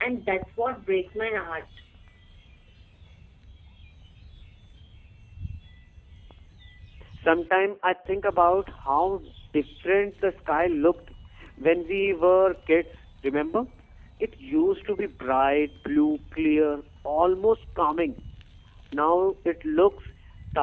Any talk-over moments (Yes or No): No